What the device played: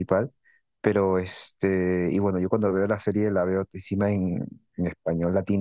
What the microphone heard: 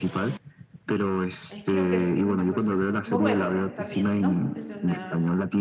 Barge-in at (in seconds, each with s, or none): 1.5 s